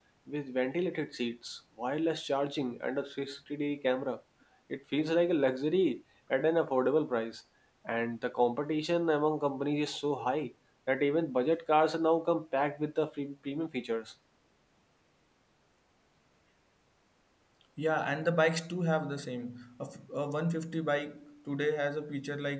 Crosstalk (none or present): none